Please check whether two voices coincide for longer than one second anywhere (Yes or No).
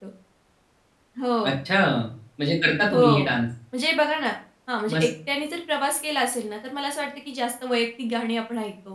No